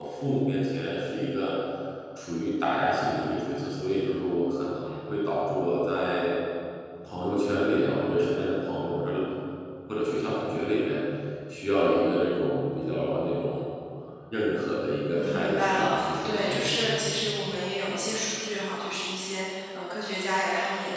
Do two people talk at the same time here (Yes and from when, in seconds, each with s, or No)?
Yes, from 15.2 s